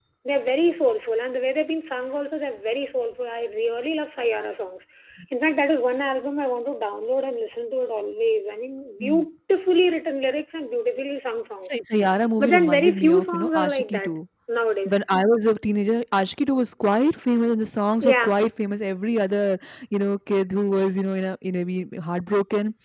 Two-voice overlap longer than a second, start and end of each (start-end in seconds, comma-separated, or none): 12.4-14.1